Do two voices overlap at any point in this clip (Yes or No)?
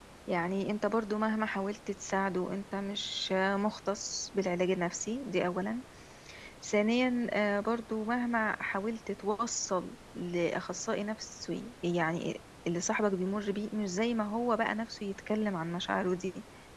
No